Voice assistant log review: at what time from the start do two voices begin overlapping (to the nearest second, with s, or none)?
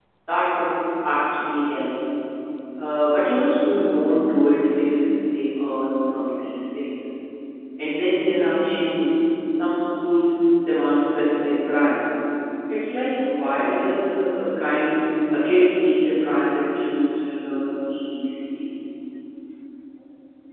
none